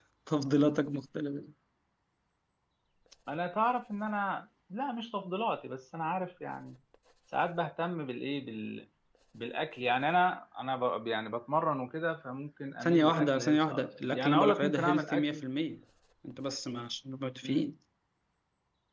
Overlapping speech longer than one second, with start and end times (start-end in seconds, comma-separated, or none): 12.8-15.4